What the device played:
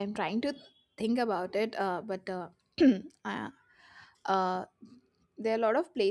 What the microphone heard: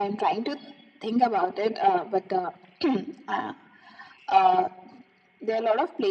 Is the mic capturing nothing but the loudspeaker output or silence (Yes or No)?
Yes